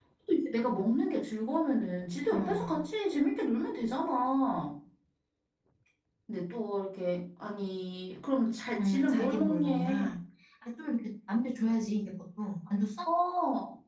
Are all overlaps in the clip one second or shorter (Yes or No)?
No